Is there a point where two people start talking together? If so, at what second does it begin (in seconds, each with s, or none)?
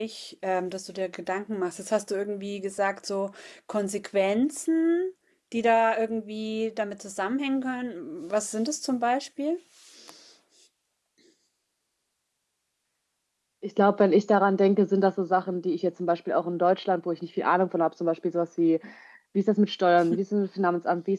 none